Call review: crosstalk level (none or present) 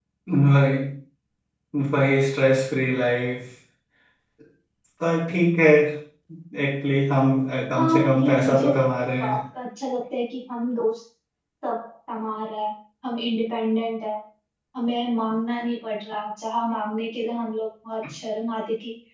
present